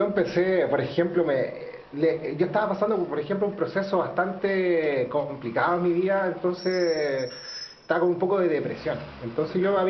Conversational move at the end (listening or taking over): listening